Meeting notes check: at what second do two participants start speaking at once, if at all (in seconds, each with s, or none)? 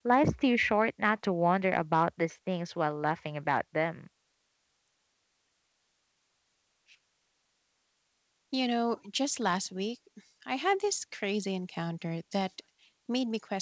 none